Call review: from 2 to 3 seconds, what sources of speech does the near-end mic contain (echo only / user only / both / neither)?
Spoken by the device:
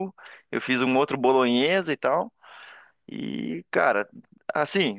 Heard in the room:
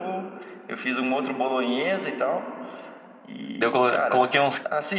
echo only